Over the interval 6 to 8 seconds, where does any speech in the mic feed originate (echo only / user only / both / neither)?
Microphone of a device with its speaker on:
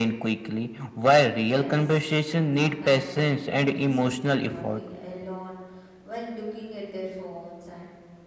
user only